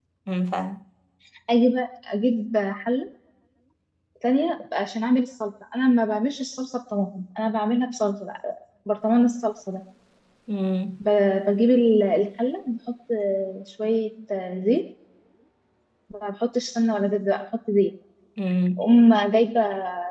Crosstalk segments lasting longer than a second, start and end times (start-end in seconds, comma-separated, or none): none